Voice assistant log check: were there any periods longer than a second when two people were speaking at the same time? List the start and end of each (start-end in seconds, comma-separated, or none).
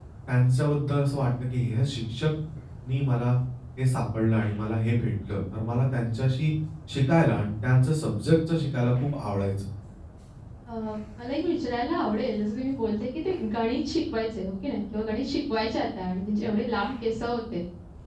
none